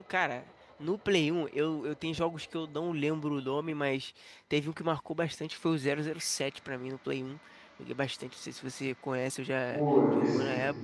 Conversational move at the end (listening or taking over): taking over